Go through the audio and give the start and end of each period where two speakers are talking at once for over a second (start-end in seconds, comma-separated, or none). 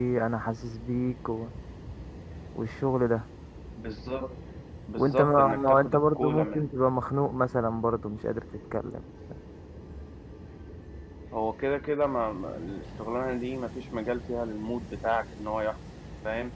5.0-6.7